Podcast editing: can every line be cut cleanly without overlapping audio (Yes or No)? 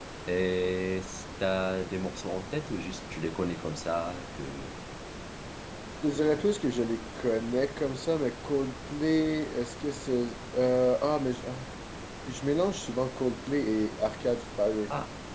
Yes